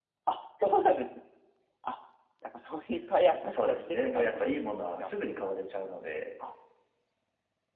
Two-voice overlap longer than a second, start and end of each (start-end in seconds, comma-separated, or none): 3.5-5.0